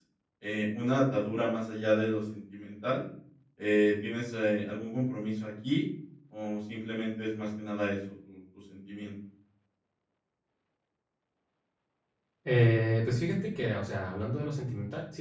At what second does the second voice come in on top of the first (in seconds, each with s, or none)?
none